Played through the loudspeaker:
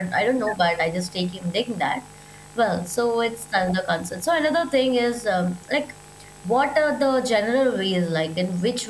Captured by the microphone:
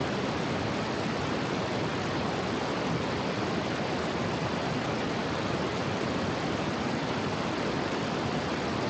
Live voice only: none

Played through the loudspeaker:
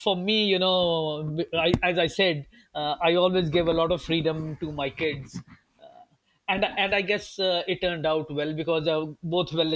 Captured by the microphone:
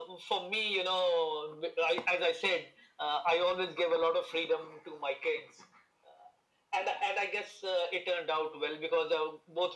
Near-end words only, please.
none

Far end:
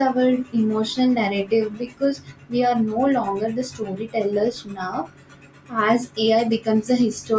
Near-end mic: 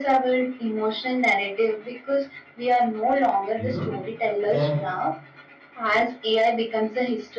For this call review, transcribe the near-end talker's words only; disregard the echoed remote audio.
you know that

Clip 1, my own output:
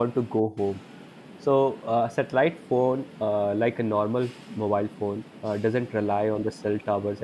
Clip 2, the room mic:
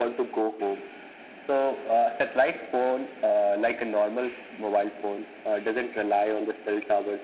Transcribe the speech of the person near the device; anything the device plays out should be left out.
none

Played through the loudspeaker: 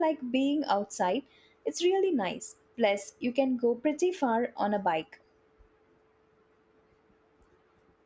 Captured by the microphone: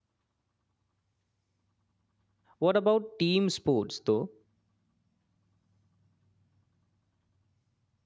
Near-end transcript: What about team sports though?

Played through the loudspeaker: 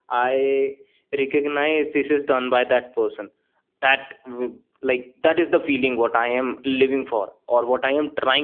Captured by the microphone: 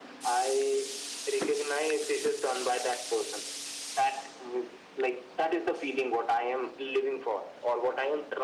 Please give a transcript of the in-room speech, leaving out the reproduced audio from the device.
none

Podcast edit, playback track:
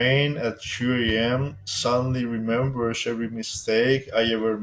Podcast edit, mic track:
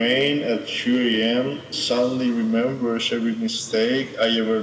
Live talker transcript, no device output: none

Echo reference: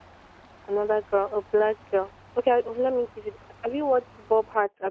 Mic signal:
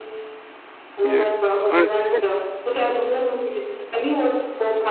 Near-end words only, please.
Yeah. Honestly, yeah,

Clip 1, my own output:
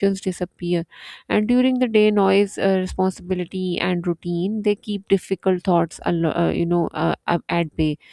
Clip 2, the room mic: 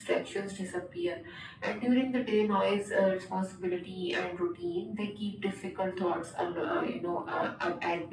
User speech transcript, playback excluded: none

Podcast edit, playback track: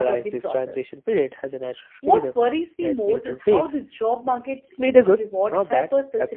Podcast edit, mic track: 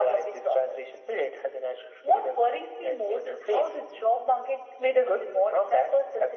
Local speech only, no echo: none

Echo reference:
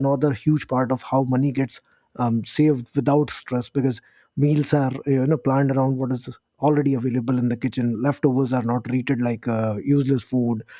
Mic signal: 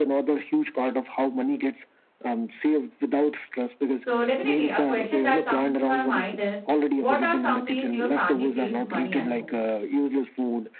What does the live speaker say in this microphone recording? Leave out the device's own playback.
So, definitely, a question that comes to my mind is what are some ways your family saves money at home?

